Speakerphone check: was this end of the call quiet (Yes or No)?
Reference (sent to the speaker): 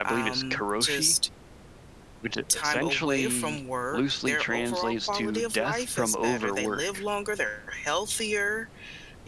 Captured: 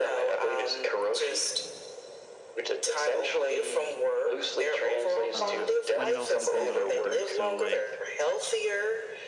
No